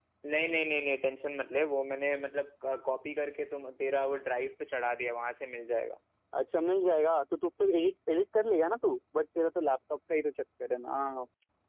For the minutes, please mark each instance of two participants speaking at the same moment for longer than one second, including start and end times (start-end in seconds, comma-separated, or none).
none